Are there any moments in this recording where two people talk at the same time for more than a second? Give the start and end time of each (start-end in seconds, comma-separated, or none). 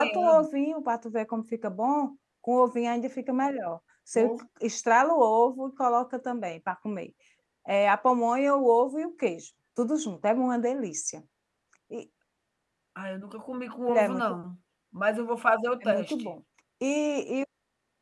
none